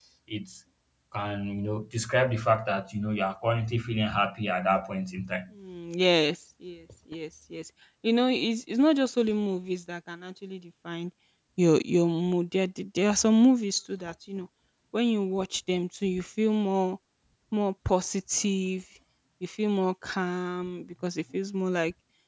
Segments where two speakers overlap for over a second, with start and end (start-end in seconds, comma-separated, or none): none